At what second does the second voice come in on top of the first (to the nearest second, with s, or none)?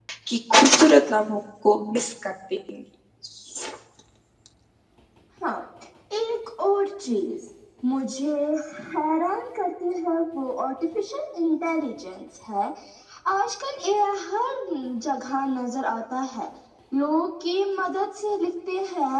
none